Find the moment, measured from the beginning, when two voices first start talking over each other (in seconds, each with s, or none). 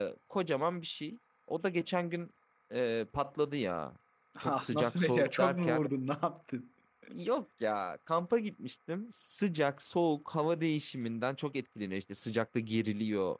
4.4 s